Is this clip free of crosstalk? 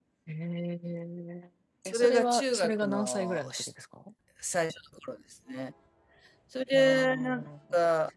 No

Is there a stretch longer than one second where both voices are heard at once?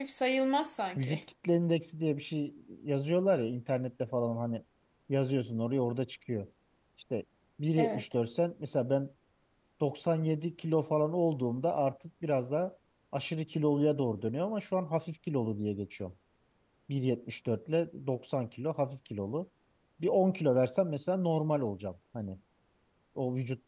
No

